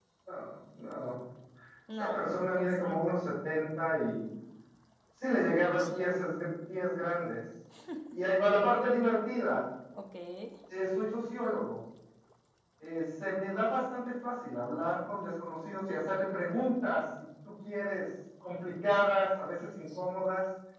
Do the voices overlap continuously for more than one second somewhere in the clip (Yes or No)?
Yes